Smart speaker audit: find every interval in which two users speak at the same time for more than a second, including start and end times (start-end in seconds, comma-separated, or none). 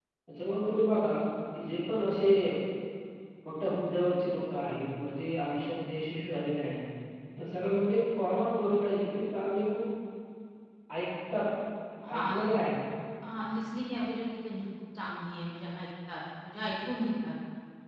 none